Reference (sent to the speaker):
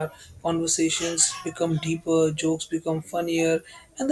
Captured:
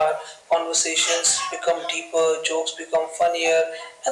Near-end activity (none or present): none